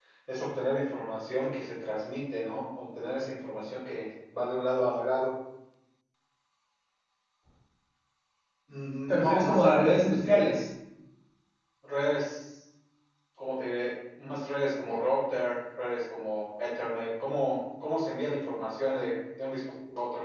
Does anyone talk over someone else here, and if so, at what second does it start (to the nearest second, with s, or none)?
9 s